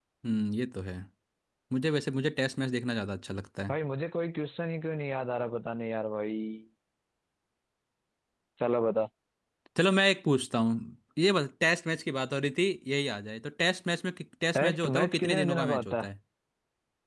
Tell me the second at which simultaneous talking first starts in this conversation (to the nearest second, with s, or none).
15 s